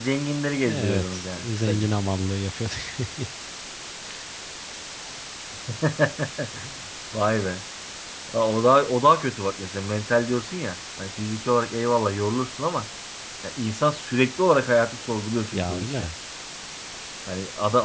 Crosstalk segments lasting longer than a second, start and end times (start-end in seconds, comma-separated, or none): 0.6-1.9